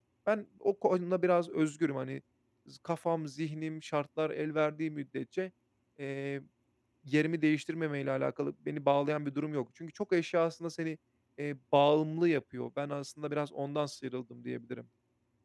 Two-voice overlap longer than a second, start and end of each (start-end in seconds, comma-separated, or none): none